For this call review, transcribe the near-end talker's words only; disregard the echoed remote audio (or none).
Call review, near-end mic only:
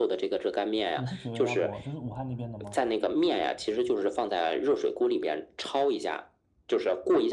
也是绝味鸭脖，就是武汉那边的吗？